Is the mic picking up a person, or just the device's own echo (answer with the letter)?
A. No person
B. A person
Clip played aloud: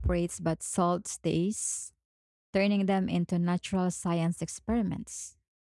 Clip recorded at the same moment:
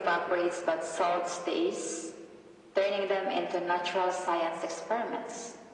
A